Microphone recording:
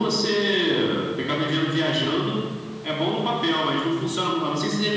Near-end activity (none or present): none